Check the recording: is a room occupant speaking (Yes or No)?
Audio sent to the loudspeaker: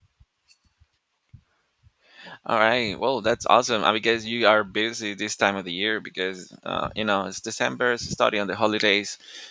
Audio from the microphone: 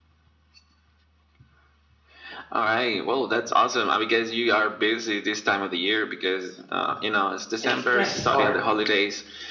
Yes